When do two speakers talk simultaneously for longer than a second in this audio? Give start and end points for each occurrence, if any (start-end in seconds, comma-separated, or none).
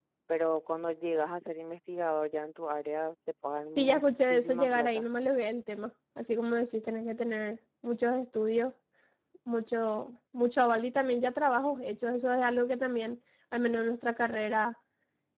3.8-5.0